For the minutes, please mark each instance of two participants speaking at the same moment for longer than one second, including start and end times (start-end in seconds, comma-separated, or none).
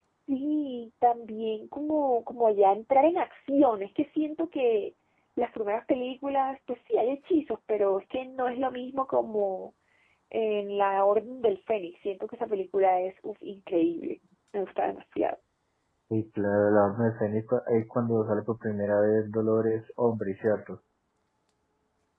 none